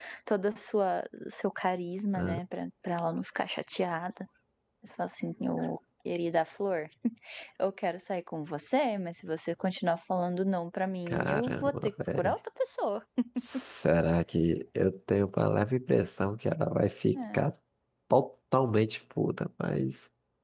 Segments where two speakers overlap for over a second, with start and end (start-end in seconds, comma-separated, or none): 11.1-12.3